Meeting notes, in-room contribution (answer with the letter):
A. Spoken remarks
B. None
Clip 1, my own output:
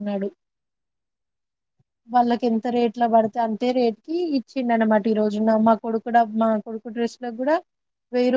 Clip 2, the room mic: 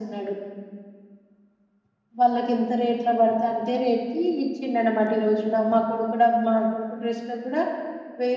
B